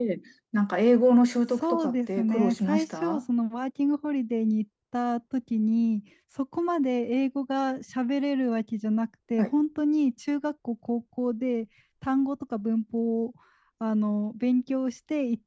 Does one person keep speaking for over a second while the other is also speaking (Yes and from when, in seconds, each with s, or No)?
Yes, from 1.6 s